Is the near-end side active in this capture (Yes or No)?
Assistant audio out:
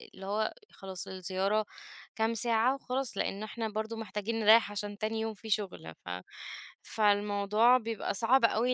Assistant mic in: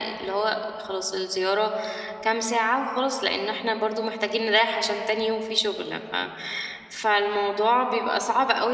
No